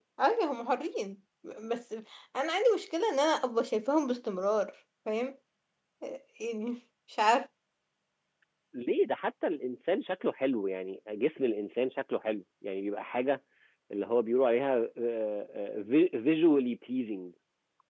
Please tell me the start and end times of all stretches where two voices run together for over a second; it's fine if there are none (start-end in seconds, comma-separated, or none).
none